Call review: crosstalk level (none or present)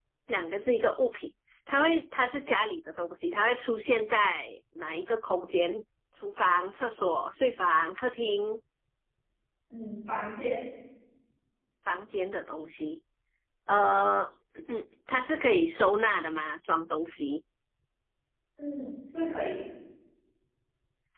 none